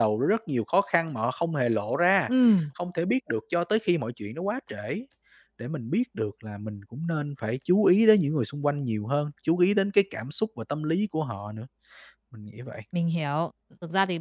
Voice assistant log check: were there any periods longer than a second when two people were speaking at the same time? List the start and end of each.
none

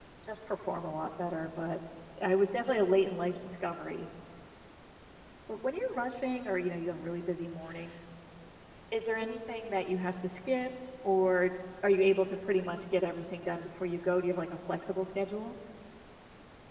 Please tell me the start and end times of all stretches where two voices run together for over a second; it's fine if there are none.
none

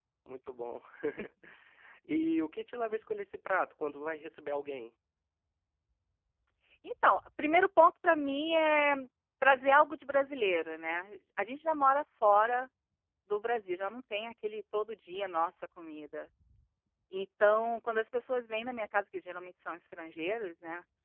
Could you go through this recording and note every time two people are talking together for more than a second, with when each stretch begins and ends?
none

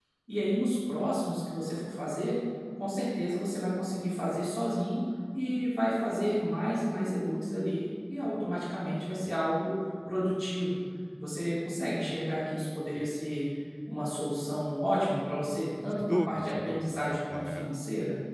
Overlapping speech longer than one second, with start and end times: 15.9-17.7

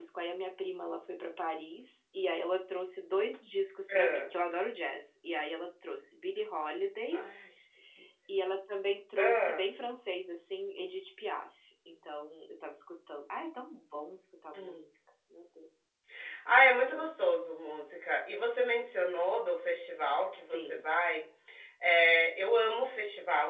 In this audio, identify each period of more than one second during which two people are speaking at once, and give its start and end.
none

